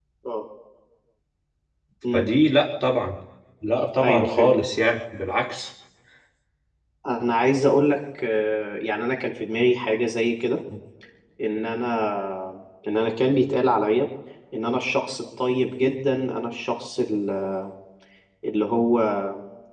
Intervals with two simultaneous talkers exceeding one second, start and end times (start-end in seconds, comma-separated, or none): none